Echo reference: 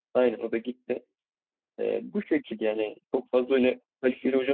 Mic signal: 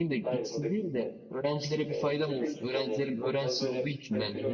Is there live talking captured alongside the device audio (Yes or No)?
Yes